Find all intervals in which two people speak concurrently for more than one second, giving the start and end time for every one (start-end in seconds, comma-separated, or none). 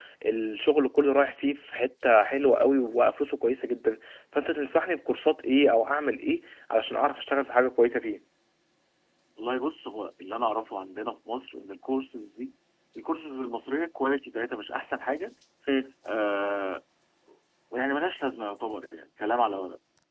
none